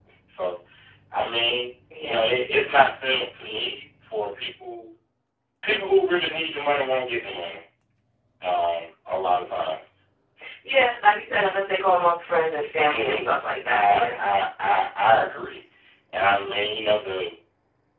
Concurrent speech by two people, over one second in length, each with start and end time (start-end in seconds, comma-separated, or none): none